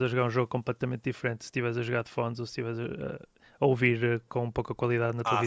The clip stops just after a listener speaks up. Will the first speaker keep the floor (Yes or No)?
No